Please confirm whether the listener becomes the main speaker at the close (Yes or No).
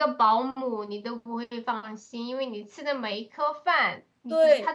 No